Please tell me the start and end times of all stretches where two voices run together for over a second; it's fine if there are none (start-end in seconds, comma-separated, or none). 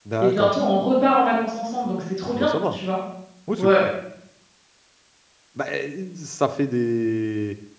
none